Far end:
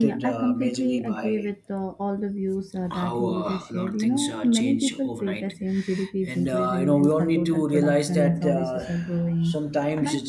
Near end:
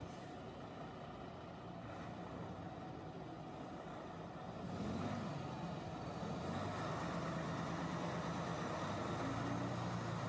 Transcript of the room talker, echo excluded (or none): none